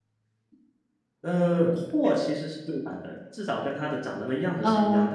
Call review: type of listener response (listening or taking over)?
listening